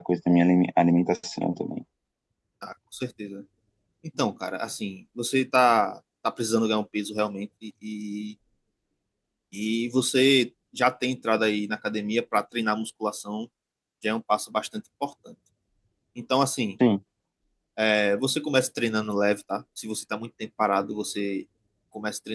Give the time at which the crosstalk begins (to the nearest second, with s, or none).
none